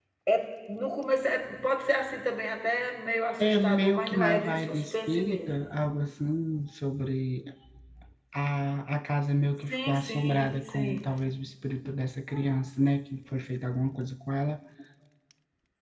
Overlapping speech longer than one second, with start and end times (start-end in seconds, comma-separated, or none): 3.4-5.7, 9.7-11.1